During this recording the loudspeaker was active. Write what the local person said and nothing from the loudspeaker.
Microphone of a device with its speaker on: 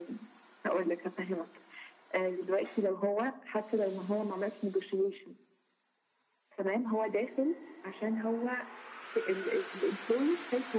none

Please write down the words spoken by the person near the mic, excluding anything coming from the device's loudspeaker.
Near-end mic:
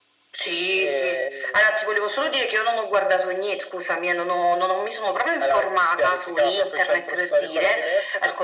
none

